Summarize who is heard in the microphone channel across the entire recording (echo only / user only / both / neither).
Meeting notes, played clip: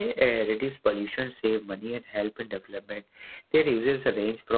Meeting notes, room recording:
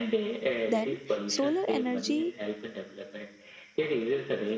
both